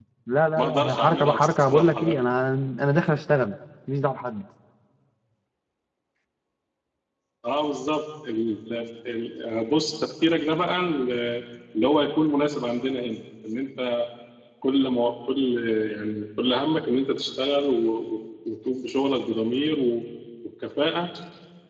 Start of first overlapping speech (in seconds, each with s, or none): 0.6 s